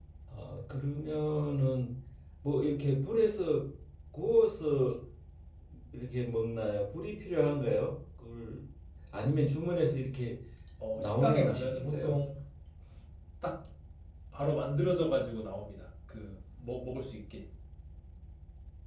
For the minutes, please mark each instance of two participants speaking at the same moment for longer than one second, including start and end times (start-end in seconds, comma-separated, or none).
10.9-12.2